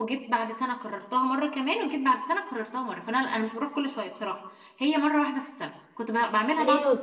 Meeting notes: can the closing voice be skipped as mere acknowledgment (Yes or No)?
No